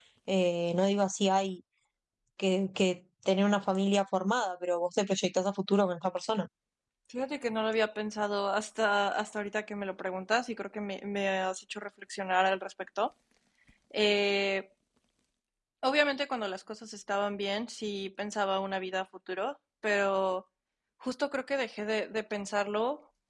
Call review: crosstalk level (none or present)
none